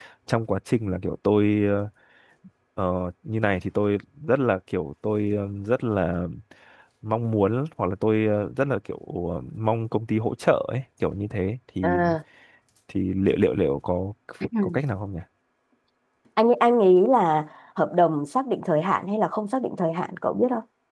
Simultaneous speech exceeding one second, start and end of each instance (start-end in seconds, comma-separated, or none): none